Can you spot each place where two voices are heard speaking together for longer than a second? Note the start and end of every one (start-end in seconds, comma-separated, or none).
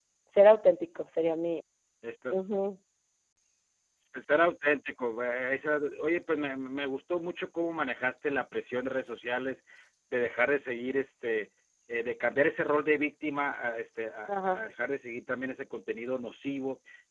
none